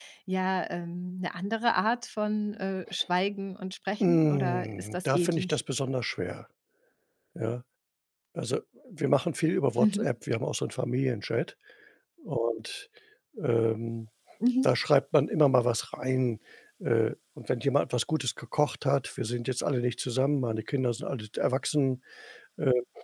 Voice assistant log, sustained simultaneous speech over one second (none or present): present